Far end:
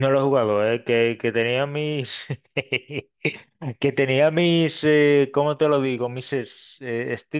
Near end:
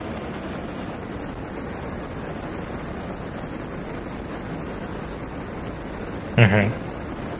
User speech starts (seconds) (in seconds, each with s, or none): 6.4 s